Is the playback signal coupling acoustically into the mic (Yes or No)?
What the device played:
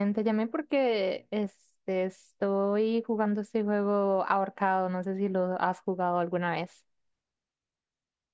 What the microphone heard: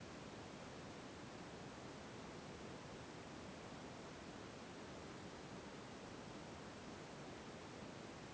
No